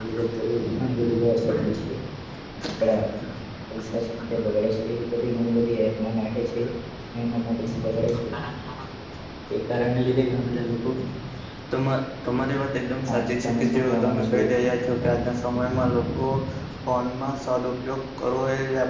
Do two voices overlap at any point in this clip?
Yes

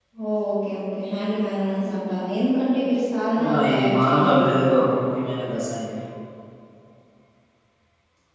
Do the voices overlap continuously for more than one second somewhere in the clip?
Yes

